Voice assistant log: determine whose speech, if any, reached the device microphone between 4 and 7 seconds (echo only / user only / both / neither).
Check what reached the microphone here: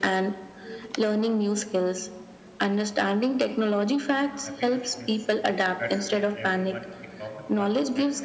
both